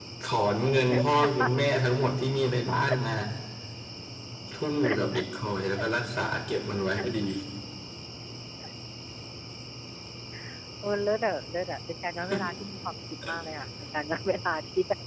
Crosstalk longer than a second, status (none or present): none